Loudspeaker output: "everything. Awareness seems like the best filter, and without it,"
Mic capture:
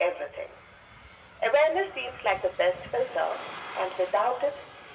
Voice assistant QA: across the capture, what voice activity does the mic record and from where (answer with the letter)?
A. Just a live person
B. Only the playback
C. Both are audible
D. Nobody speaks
B